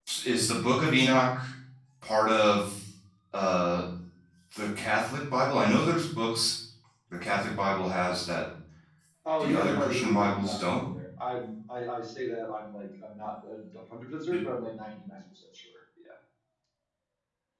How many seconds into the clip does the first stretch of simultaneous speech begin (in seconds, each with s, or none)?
9.4 s